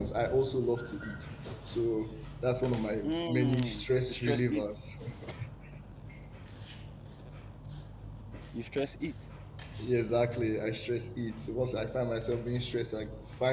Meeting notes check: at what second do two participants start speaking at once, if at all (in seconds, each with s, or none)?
3.0 s